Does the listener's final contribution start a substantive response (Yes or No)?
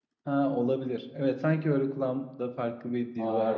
Yes